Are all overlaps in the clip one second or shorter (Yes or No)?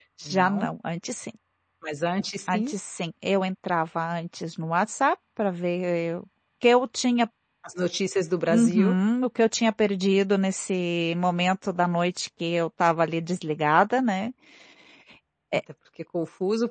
Yes